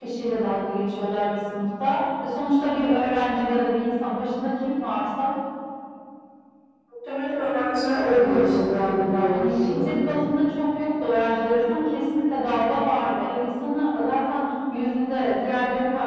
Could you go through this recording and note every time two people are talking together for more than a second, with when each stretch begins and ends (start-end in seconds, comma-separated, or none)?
7.9-10.2